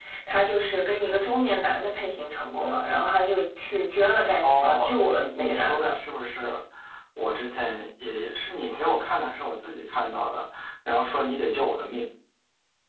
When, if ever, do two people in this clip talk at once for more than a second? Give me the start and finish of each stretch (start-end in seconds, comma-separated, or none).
4.4-5.9